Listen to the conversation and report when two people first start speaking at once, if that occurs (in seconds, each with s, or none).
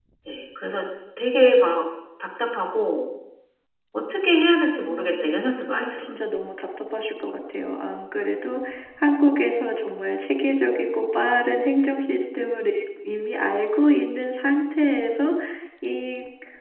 4.9 s